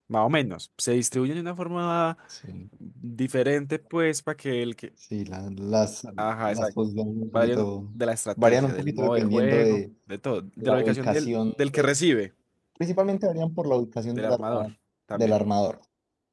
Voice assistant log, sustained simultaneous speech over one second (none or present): present